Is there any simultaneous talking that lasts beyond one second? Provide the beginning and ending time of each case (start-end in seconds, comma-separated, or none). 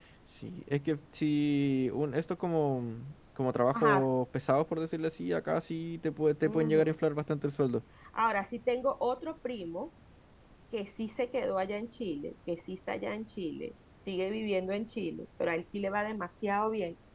none